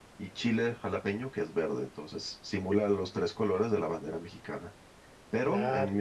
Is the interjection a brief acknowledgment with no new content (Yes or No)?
Yes